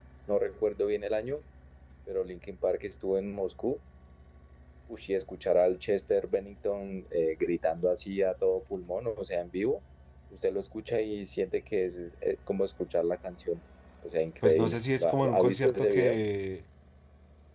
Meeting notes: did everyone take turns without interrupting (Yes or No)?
No